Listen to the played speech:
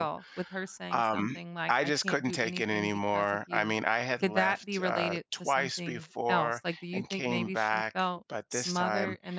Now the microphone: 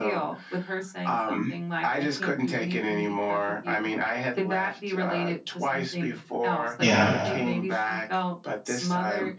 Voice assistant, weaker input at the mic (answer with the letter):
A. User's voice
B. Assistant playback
B